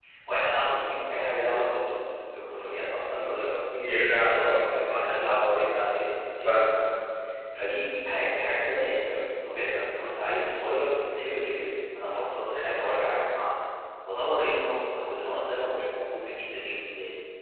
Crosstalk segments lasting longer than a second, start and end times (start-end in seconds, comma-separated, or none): 4.3-5.6